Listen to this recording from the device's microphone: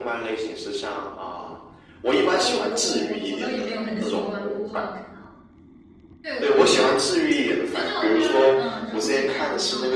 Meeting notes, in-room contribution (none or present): present